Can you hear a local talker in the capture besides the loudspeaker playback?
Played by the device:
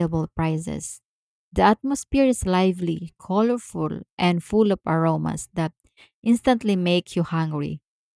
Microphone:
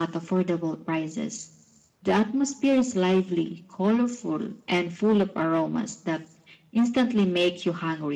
No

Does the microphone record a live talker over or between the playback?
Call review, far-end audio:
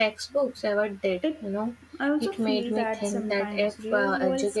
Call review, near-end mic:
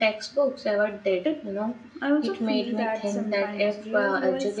No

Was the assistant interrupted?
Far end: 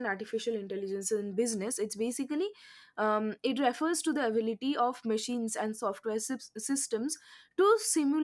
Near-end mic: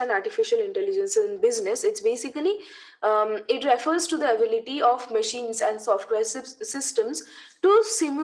No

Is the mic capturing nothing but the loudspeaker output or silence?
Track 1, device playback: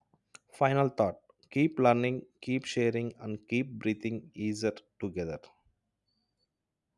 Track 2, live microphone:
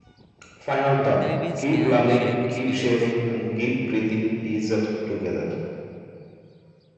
No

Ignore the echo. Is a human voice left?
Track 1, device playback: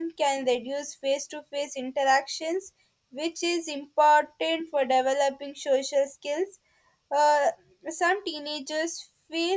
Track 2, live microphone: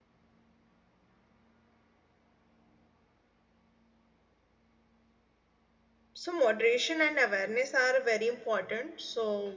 Yes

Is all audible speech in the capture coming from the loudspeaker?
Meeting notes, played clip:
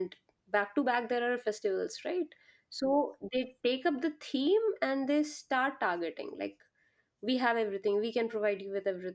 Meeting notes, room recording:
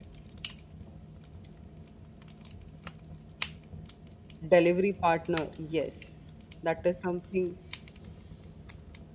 No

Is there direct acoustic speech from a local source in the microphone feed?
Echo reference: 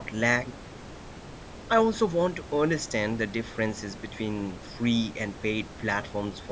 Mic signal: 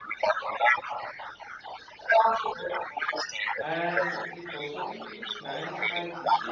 Yes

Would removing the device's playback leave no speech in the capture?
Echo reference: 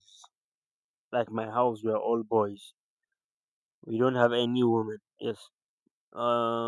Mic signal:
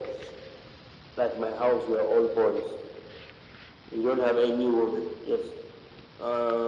Yes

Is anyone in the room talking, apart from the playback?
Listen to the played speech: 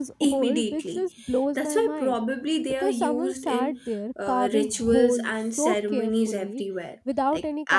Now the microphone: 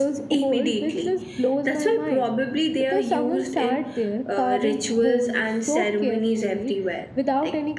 No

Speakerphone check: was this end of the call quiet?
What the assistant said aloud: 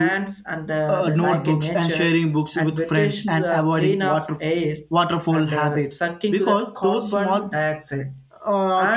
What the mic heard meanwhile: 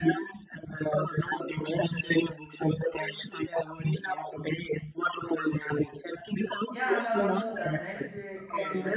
No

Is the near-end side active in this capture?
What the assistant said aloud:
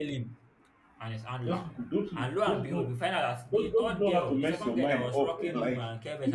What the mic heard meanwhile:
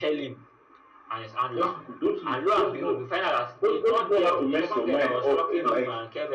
No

